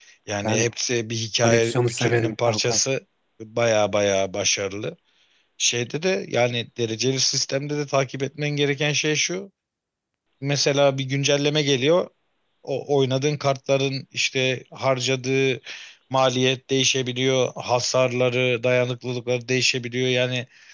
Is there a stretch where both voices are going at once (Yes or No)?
Yes